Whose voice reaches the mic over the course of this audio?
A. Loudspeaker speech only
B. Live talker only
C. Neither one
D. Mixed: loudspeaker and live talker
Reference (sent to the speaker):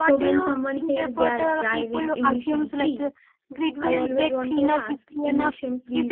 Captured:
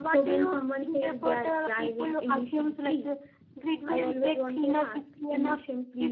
A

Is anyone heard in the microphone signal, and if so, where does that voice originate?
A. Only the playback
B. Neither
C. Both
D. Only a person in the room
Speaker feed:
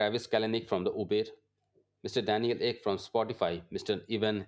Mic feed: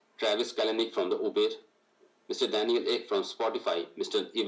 A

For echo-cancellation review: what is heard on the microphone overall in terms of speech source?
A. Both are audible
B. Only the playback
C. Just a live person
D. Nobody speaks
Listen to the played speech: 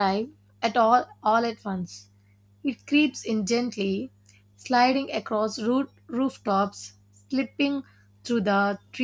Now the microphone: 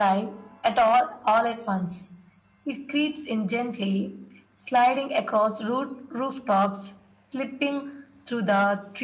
B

